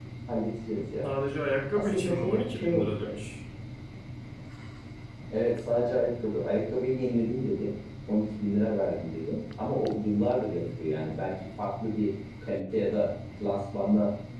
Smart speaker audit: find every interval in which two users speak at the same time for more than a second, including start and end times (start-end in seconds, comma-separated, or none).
1.7-3.1